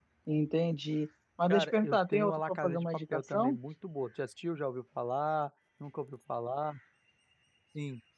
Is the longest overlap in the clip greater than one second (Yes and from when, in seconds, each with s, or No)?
Yes, from 1.5 s